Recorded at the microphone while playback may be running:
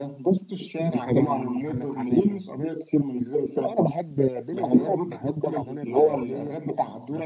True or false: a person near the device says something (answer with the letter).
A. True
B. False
B